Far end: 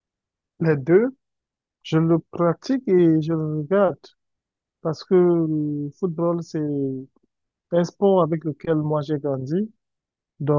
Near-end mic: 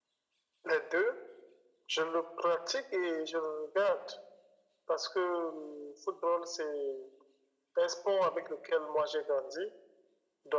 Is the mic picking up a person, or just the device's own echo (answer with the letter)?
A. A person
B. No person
B